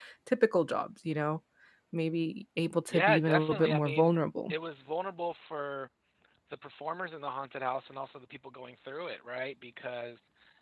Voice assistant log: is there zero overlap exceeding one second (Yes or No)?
No